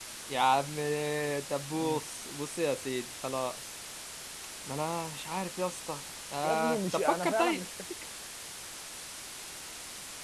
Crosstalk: present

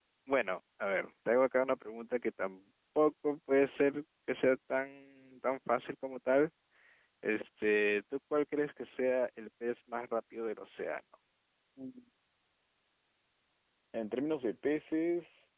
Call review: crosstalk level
none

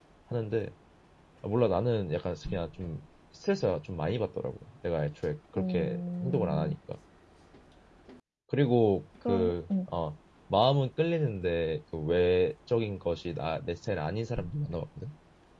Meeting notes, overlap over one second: present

